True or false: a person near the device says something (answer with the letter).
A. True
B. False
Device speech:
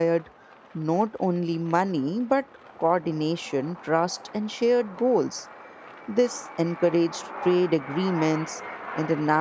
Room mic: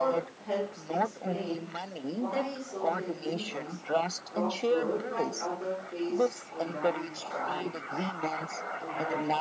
A